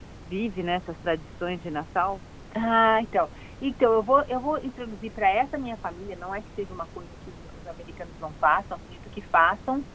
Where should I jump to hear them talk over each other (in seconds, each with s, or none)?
none